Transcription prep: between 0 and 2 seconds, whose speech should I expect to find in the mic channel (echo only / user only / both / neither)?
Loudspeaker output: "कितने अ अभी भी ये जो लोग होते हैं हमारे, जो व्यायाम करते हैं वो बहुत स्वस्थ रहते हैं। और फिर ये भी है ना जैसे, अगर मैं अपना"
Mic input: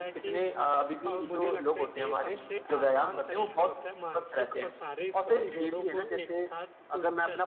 both